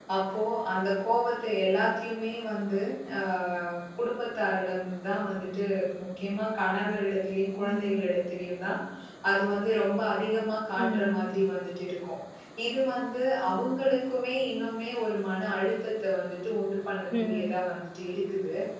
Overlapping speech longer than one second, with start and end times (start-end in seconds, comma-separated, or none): none